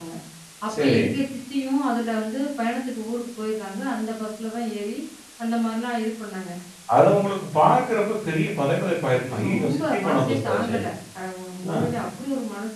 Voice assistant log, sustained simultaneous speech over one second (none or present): present